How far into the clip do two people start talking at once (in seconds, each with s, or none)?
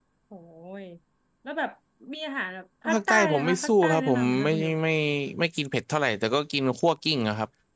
2.9 s